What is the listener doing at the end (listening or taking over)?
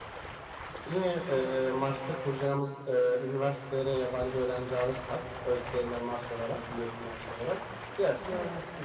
taking over